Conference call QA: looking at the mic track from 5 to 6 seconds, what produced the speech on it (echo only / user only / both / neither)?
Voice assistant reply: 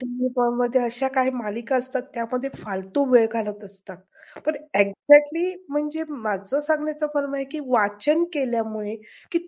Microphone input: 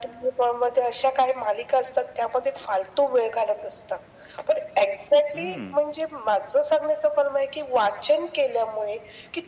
both